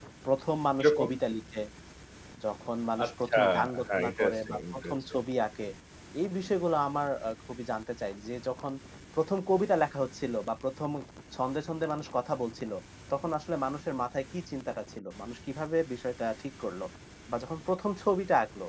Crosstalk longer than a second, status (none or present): present